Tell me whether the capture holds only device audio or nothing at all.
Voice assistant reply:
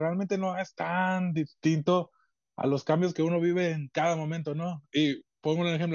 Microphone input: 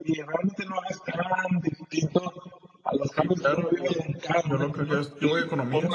No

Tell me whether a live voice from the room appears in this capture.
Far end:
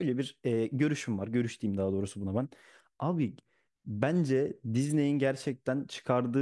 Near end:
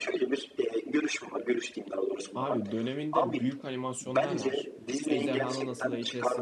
Yes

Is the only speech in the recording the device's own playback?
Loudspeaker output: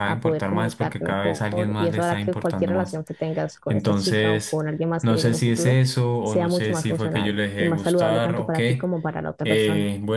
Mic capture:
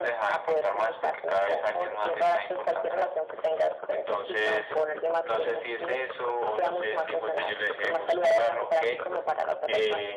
Yes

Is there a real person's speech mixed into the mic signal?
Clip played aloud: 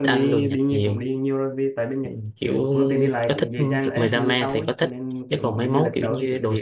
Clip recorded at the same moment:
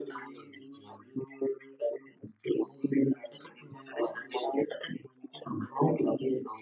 No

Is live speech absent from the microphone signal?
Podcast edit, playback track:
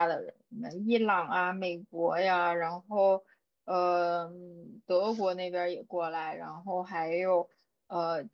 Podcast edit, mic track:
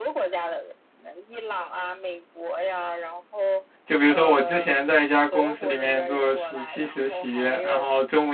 No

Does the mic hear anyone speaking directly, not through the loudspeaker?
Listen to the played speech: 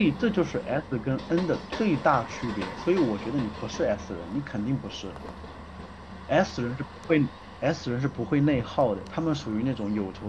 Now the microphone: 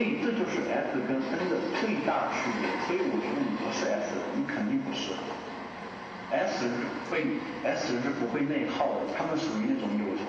No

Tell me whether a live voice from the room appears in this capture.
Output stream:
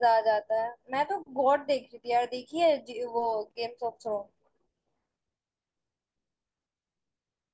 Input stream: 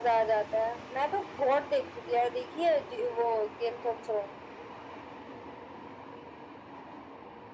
No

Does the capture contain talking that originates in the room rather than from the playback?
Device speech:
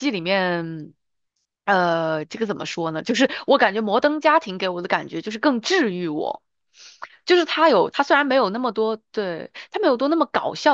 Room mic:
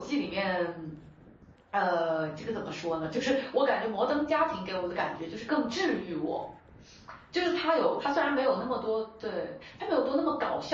No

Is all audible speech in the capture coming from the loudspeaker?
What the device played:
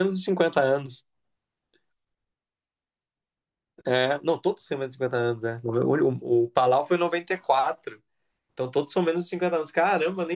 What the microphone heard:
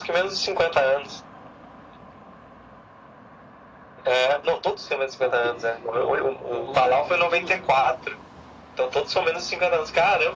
No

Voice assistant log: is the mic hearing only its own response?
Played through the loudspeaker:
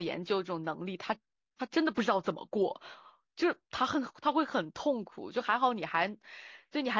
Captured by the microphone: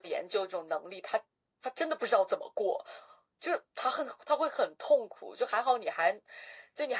Yes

